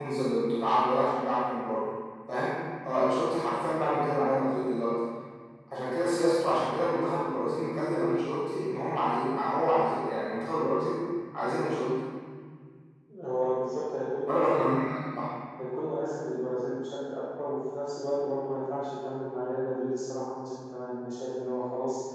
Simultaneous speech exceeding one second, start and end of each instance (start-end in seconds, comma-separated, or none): none